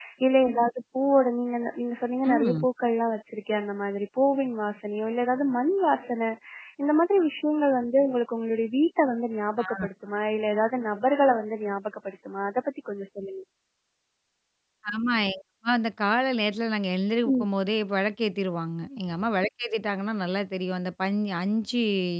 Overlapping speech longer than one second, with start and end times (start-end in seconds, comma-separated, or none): none